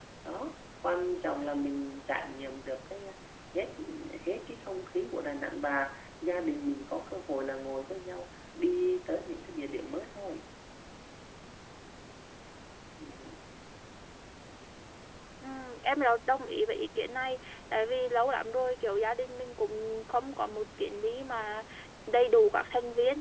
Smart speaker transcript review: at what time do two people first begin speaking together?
none

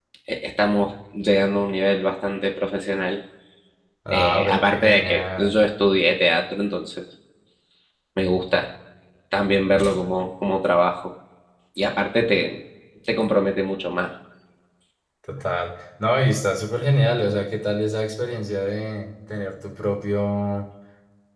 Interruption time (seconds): 4.1 s

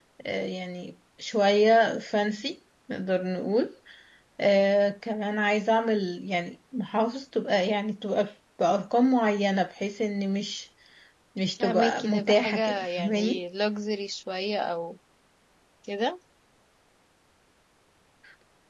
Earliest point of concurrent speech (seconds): 11.6 s

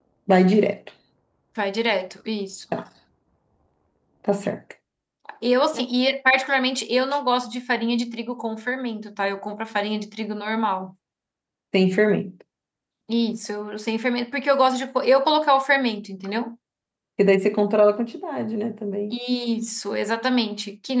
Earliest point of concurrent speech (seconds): none

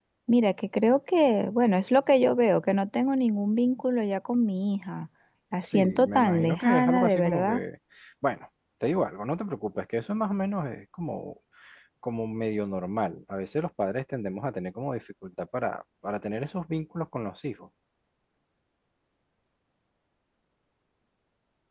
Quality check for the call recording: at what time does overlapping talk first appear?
5.6 s

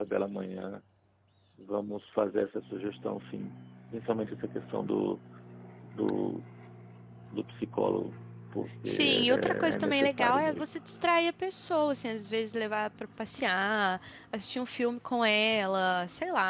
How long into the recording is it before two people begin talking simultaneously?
8.8 s

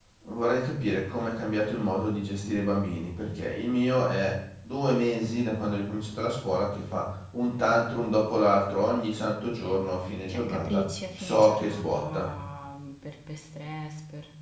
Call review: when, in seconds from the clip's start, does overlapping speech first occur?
10.3 s

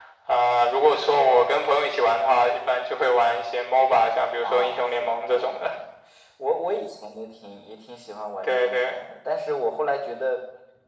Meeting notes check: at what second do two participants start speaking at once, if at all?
4.4 s

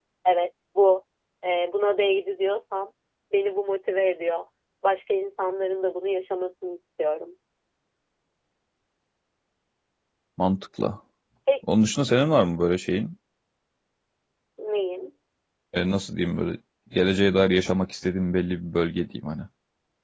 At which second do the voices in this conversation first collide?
none

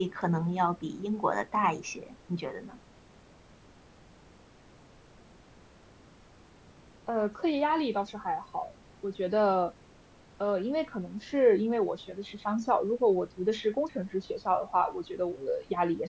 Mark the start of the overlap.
none

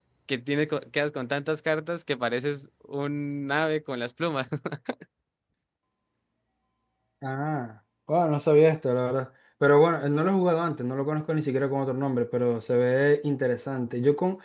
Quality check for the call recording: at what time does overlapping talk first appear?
none

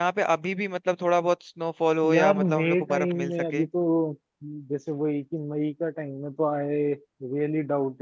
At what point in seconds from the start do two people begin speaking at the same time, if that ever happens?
2.0 s

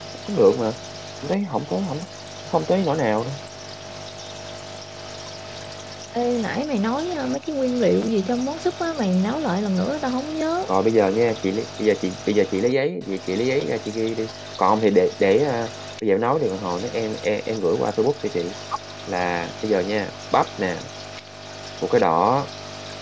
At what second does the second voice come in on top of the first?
none

